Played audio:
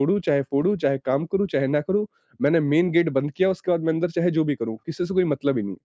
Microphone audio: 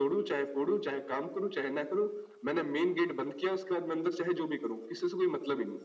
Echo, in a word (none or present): present